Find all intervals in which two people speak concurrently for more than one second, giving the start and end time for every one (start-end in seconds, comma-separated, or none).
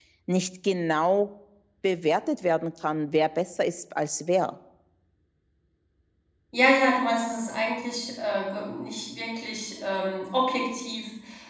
none